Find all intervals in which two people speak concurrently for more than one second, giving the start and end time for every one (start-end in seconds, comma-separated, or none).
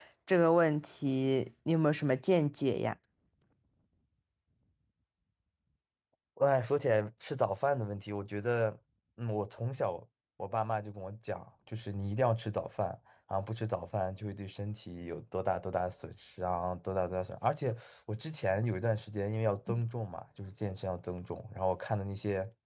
none